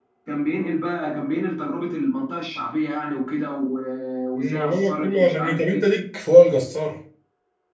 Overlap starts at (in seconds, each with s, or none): 4.3 s